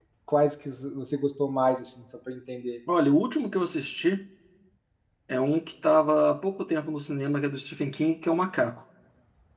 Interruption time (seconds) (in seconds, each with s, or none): none